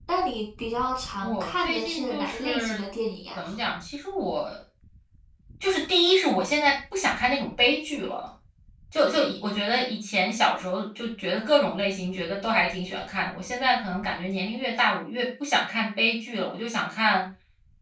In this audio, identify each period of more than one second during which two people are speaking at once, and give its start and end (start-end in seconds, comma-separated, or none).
1.2-2.8